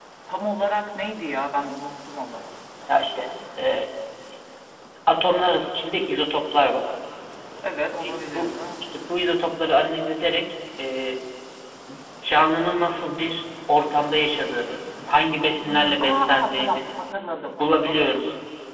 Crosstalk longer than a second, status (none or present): present